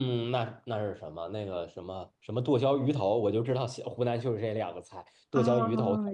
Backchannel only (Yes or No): No